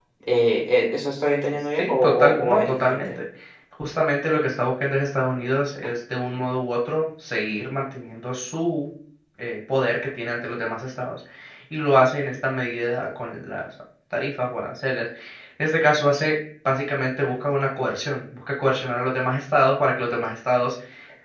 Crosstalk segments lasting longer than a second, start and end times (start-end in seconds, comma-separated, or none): 1.8-3.1